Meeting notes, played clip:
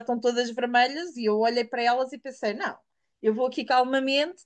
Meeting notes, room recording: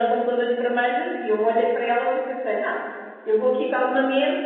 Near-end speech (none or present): none